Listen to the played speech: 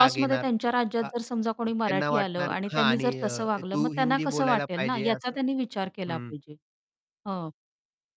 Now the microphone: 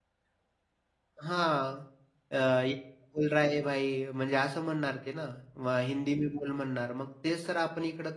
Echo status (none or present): none